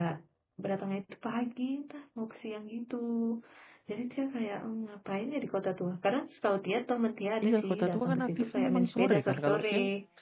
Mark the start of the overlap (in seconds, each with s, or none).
7.4 s